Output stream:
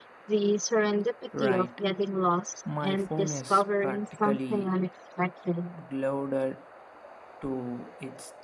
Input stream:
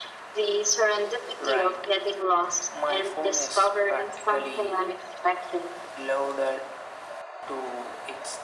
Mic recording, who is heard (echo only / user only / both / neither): echo only